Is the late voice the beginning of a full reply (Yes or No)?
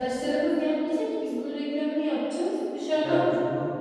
Yes